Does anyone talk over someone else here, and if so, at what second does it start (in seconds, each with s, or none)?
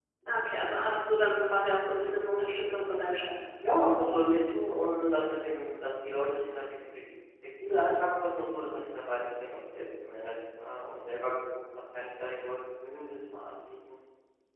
none